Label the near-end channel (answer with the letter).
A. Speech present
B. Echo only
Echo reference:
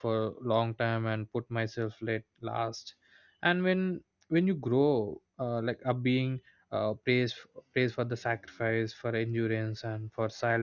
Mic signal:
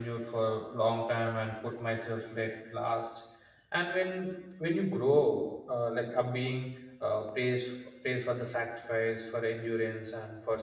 B